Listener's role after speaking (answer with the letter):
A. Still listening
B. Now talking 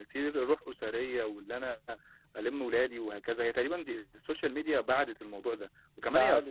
A